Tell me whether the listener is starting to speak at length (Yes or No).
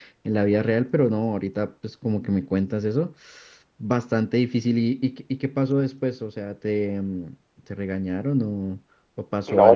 Yes